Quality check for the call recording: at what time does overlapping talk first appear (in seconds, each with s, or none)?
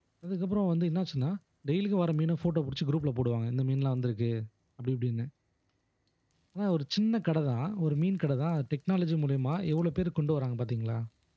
none